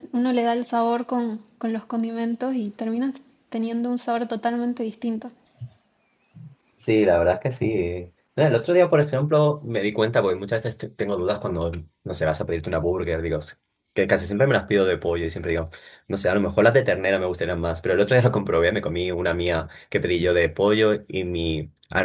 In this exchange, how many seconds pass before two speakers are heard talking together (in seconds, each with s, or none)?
none